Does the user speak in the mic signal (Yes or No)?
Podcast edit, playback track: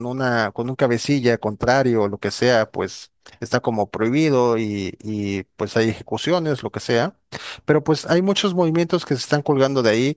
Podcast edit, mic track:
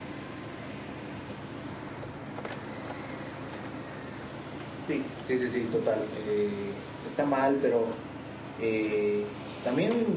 Yes